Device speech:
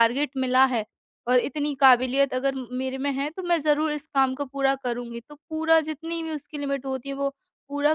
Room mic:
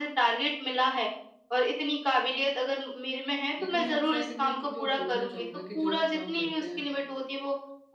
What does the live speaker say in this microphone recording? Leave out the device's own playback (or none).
लेकिन मैं आपसे आखिर में एक चीज़ और पूछना चाहूँगा कि जो आप काम करते हैं,